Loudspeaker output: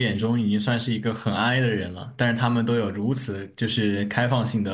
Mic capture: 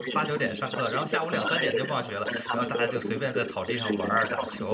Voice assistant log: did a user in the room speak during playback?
Yes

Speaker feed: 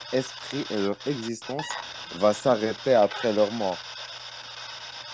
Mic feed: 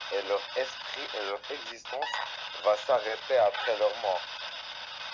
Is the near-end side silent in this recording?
Yes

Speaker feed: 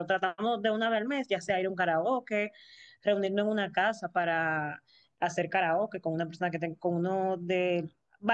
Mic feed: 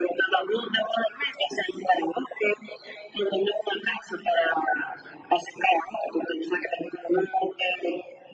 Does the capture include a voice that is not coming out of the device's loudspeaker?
No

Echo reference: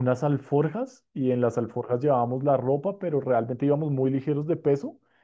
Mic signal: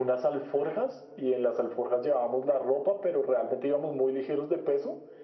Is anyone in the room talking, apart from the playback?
No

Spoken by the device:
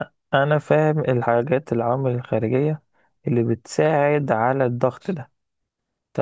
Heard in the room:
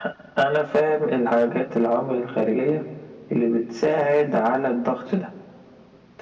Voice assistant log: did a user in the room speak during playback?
No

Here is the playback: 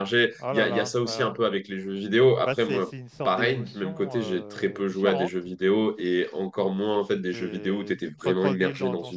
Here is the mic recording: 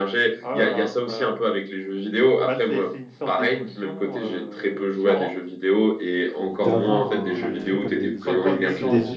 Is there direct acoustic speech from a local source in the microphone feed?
Yes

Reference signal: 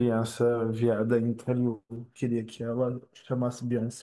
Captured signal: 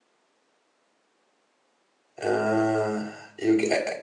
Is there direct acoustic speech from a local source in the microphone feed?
Yes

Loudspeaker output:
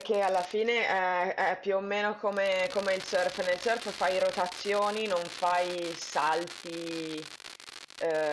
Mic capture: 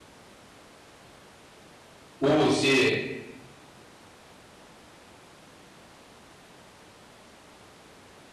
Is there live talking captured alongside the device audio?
Yes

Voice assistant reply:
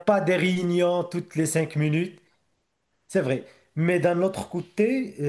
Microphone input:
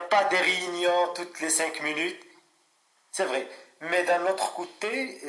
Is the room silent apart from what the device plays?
Yes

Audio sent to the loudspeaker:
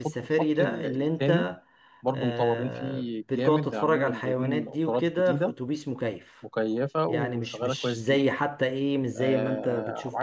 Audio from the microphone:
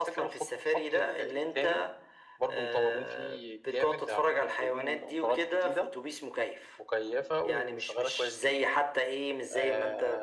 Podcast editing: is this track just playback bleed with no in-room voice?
Yes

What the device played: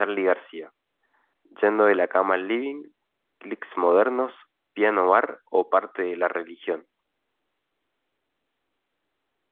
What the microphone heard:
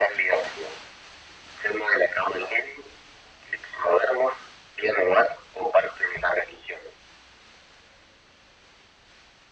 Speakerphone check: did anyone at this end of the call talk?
No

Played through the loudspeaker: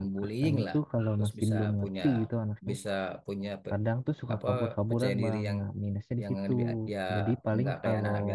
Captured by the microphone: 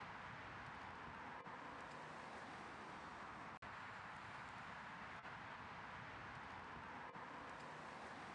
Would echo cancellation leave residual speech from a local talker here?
No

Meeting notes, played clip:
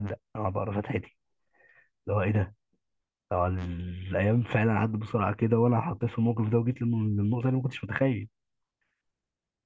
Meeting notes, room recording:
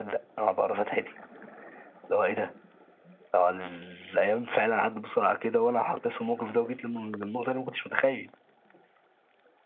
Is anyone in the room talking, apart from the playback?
No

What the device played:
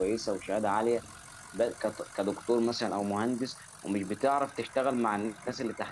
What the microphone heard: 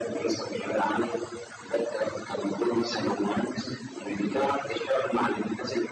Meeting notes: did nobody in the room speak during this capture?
Yes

